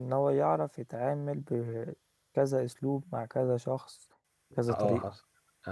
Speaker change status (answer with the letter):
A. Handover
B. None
A